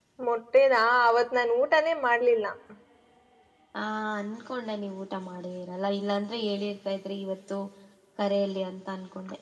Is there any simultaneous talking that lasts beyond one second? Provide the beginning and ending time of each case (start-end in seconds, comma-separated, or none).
none